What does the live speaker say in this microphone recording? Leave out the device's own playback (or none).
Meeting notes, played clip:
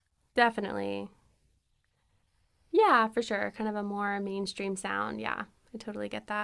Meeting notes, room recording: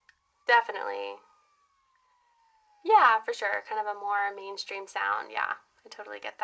none